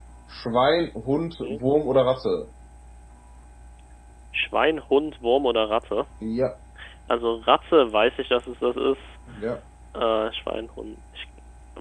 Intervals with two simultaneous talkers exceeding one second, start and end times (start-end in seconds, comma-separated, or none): none